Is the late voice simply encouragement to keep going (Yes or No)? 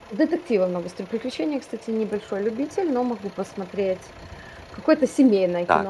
No